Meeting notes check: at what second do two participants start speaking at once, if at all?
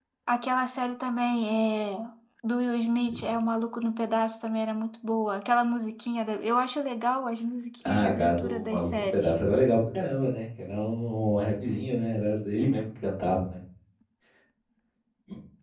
7.8 s

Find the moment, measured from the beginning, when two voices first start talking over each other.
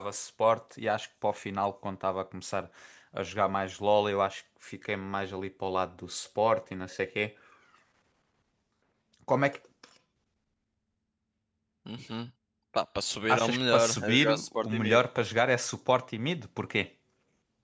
13.3 s

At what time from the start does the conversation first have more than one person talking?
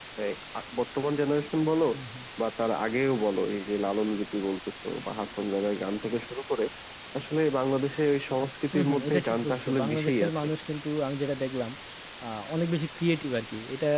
8.7 s

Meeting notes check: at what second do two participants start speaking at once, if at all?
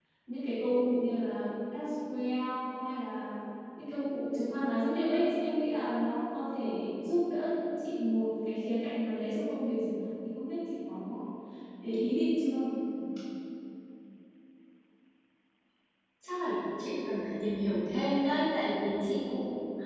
none

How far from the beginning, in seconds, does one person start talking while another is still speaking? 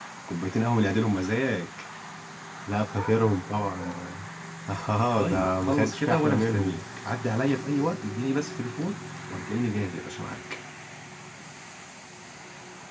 5.2 s

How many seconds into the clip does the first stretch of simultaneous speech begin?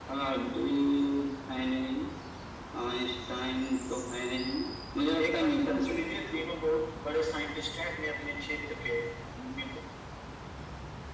5.2 s

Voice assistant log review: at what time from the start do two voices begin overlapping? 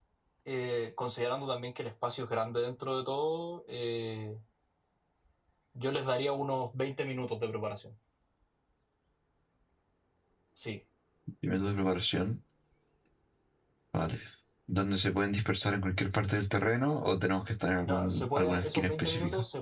17.9 s

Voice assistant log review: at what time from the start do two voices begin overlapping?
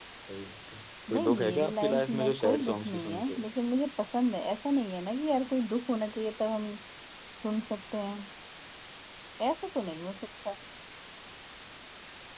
1.1 s

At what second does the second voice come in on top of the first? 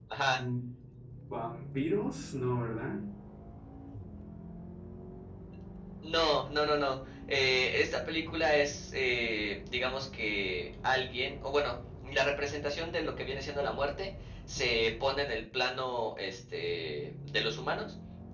none

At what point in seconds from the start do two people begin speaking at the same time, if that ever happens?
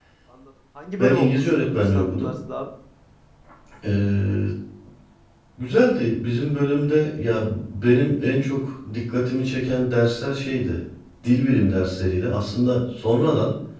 1.0 s

